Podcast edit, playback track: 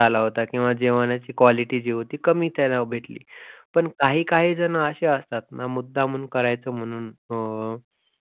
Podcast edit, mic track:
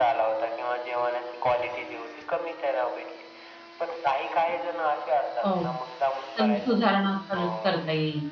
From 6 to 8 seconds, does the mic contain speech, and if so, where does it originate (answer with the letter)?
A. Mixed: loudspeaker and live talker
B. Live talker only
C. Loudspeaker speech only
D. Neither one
A